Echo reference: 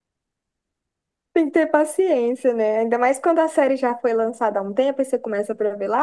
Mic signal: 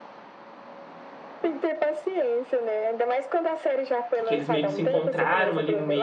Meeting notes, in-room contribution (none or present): present